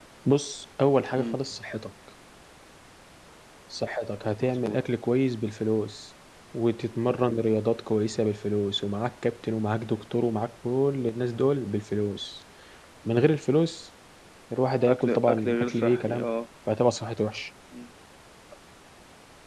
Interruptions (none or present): present